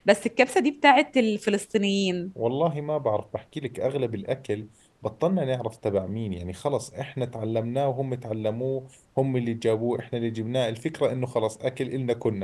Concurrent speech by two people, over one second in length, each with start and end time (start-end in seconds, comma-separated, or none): none